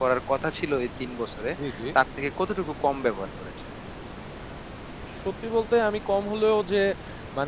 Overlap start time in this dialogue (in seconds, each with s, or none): none